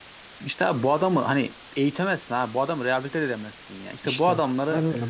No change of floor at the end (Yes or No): No